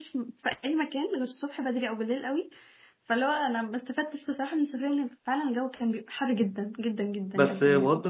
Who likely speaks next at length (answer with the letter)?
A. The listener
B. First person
A